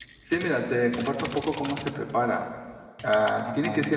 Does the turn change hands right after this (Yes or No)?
No